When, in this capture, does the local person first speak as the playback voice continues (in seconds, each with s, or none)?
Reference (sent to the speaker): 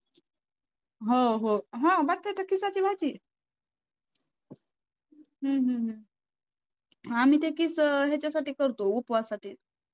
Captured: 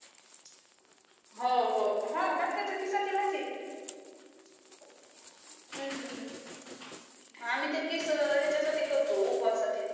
none